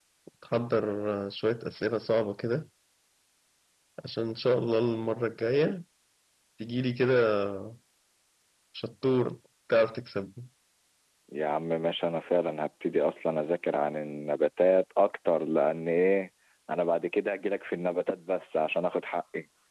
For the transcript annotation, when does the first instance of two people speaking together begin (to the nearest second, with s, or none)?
none